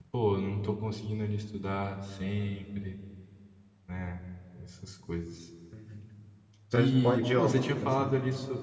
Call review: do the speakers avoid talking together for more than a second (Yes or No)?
No